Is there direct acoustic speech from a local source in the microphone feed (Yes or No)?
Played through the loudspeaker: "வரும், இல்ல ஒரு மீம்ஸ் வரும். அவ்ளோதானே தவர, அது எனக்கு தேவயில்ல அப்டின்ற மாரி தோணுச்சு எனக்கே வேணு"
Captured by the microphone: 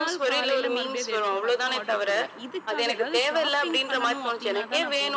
Yes